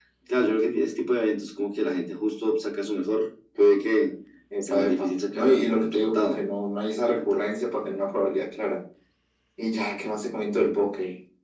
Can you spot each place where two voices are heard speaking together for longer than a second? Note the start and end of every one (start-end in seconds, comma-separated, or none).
4.6-6.4